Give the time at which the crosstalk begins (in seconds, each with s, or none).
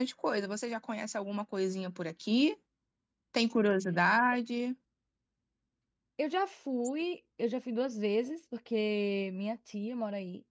none